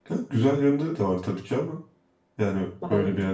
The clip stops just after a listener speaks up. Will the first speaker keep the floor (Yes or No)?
Yes